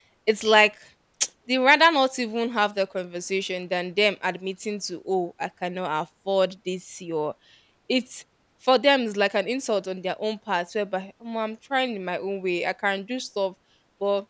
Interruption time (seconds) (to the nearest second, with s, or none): none